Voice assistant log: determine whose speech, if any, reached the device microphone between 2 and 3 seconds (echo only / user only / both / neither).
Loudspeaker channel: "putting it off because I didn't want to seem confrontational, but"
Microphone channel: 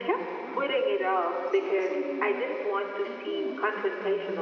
both